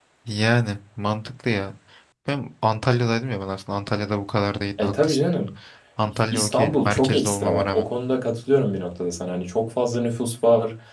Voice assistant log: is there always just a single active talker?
No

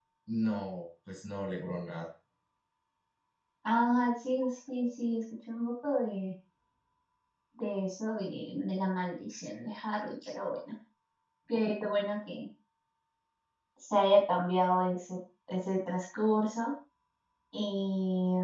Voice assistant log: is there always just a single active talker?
Yes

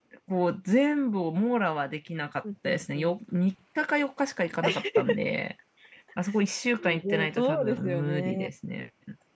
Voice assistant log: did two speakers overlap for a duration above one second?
Yes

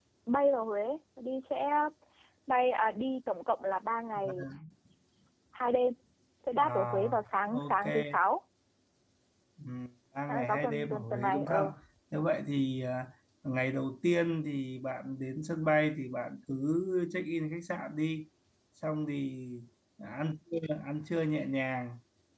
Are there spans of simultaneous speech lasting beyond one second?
Yes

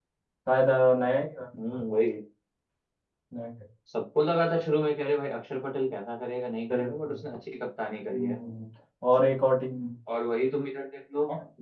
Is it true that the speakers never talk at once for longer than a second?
Yes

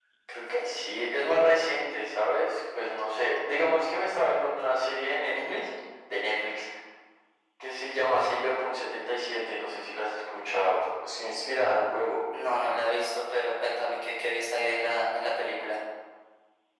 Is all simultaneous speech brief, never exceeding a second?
Yes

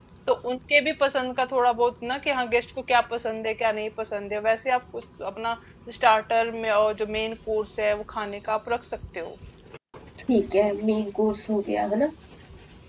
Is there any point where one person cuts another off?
No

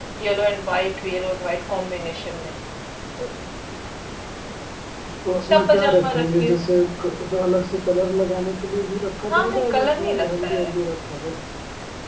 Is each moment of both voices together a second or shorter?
No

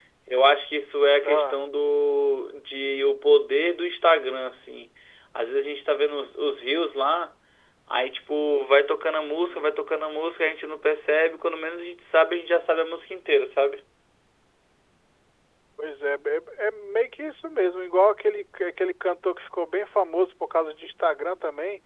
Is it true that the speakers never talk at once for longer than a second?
Yes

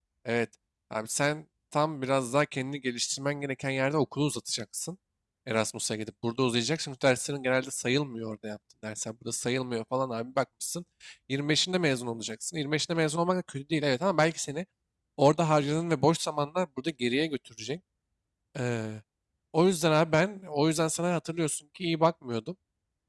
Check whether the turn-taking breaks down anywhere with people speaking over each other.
No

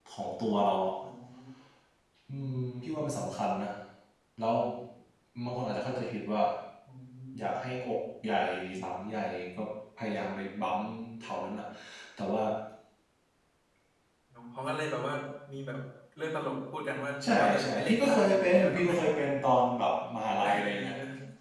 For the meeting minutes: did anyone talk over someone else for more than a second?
Yes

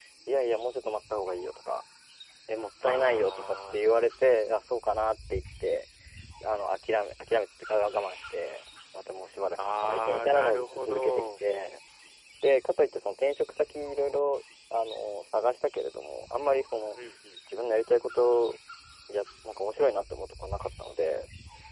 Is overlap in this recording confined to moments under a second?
No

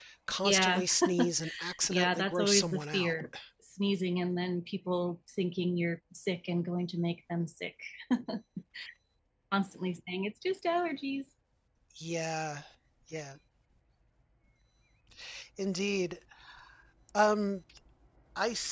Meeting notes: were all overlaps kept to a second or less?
No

